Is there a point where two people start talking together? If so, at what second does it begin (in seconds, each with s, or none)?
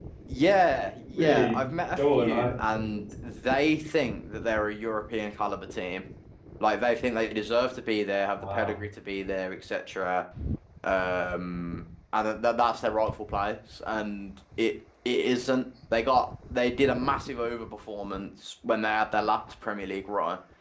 1.1 s